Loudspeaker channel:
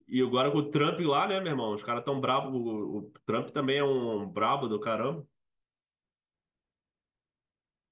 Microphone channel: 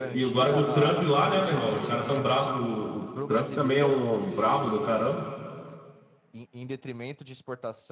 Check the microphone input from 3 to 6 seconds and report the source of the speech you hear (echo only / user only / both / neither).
both